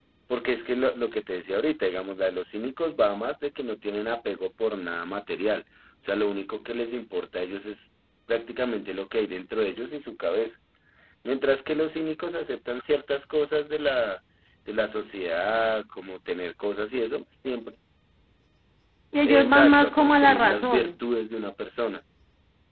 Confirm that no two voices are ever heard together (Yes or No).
No